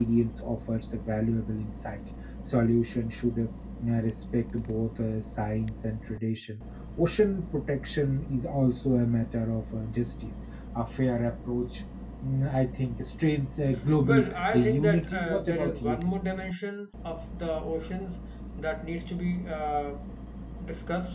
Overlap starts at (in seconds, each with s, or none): 14.0 s